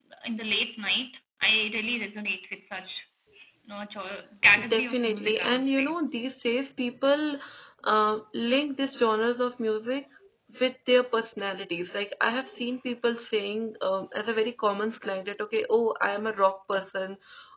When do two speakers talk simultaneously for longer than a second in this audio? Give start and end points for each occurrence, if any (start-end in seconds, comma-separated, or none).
4.7-5.9